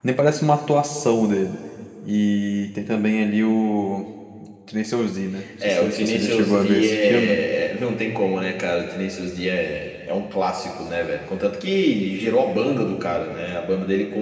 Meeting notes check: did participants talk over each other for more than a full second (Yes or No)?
Yes